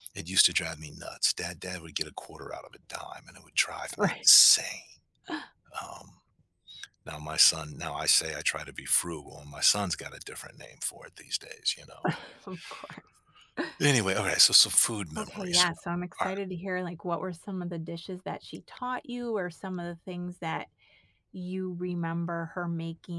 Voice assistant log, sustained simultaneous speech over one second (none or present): none